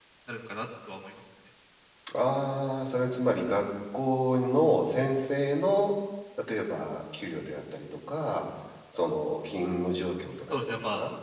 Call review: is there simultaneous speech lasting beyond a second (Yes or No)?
No